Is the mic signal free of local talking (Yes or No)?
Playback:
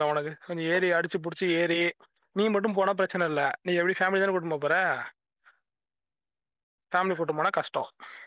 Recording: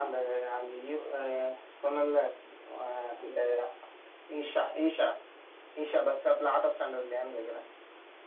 No